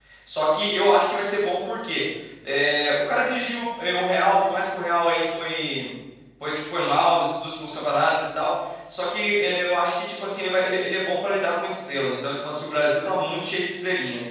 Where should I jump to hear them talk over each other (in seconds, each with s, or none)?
none